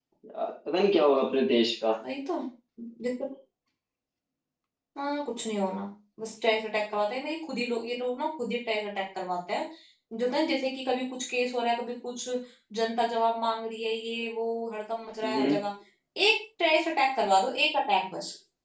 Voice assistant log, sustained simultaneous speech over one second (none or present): none